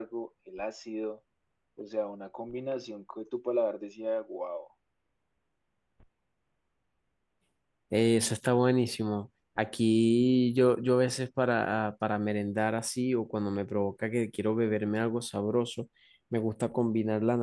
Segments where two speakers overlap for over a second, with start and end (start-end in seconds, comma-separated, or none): none